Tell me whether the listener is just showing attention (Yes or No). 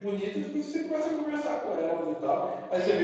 Yes